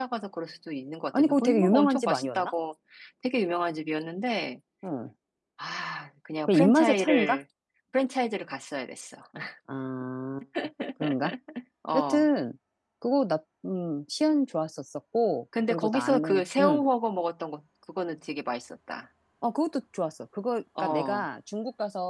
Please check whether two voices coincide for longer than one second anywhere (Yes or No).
Yes